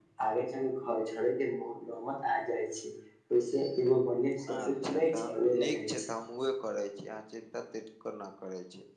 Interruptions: present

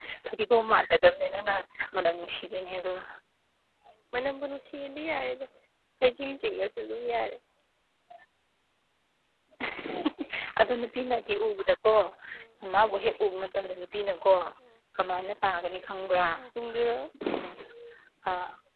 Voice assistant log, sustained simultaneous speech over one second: none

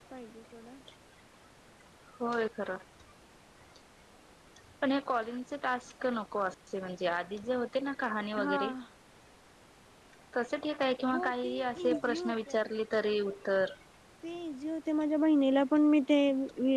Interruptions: present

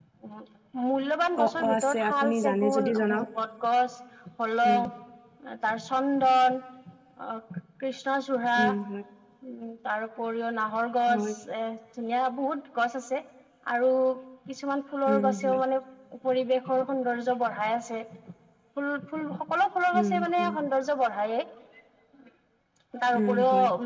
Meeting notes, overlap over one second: present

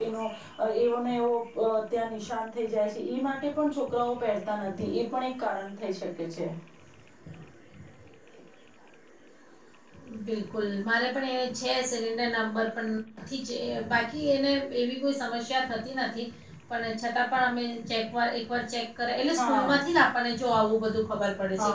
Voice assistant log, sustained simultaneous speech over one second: none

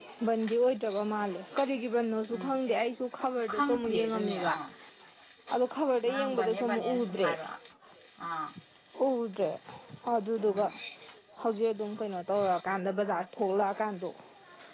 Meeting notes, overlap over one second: present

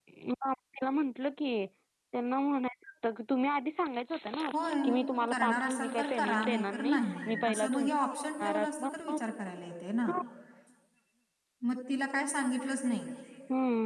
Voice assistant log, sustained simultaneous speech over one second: present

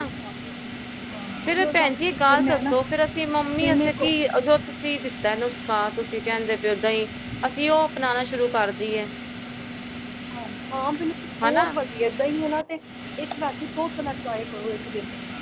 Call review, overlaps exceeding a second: none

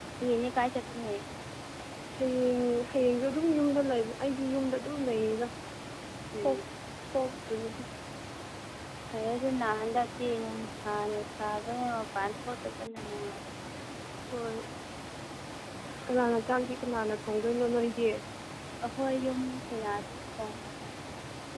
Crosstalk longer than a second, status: none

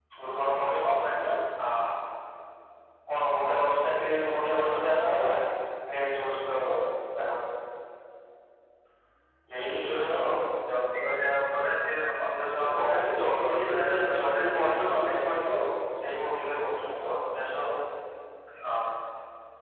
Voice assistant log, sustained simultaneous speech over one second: present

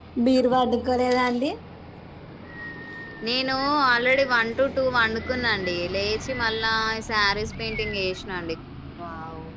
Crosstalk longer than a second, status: none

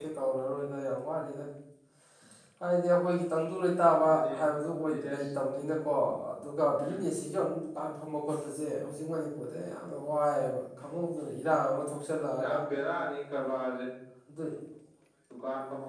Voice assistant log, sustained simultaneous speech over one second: none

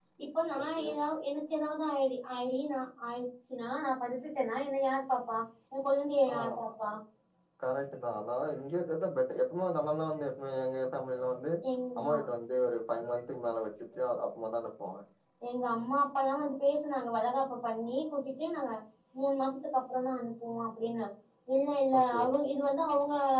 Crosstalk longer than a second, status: none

